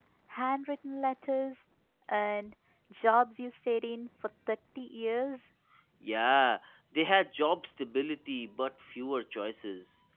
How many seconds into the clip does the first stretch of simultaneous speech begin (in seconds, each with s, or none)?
none